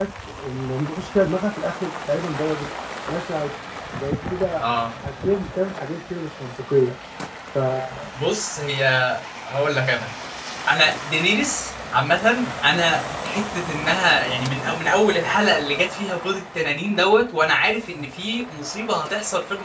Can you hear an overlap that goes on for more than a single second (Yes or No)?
No